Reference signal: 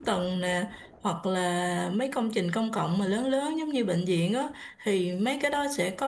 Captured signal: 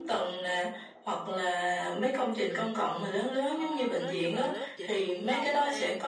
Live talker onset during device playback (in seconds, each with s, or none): 3.5 s